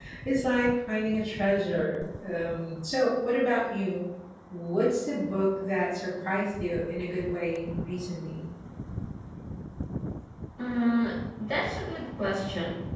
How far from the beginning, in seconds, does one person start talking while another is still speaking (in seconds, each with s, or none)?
none